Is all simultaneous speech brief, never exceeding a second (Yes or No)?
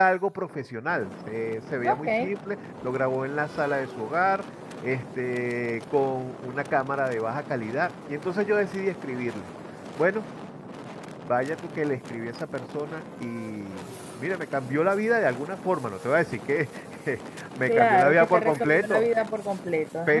No